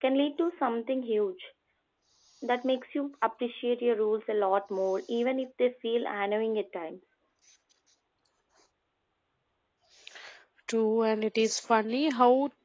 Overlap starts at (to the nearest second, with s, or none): none